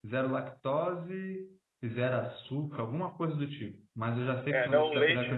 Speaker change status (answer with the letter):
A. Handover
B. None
A